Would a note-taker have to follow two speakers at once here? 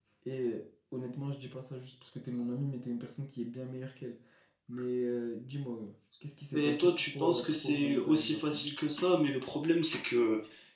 Yes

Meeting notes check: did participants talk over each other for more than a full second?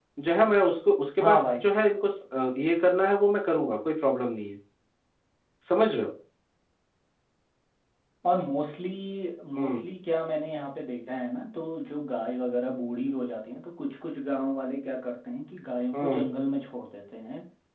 No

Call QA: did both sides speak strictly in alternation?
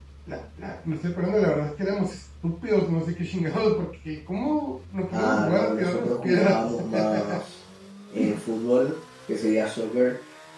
No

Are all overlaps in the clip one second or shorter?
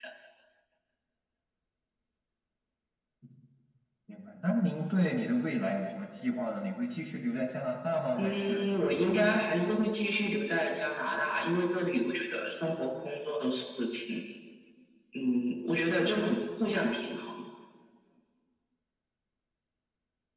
No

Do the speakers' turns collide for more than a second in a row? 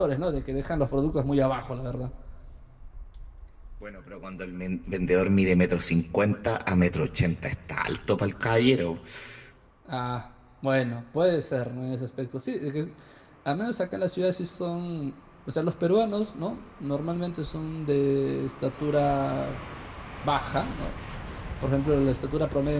No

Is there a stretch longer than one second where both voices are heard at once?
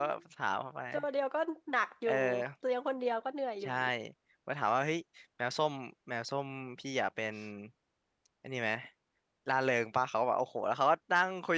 No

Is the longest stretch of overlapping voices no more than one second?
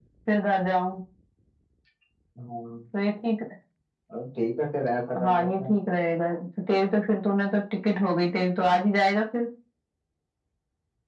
Yes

